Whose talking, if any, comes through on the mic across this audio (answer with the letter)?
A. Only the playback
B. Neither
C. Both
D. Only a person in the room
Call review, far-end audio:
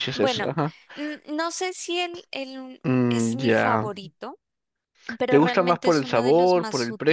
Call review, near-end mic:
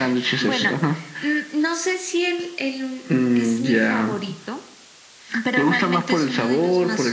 A